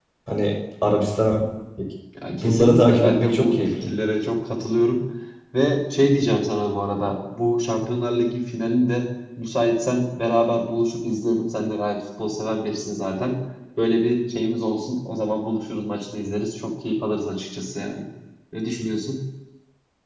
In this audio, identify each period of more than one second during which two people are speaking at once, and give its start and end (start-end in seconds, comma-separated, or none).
2.3-3.9